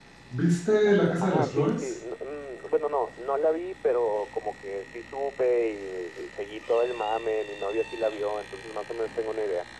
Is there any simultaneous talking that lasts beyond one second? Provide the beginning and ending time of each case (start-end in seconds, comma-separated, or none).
0.7-1.9